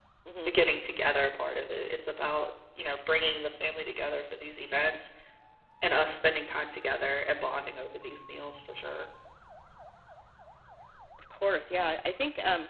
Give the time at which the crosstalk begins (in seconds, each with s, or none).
none